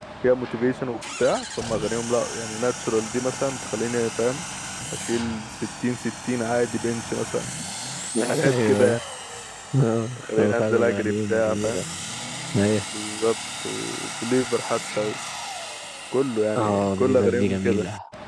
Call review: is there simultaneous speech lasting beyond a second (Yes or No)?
Yes